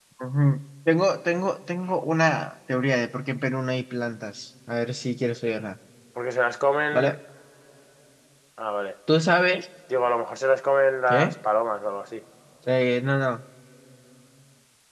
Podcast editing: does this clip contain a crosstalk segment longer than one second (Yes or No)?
No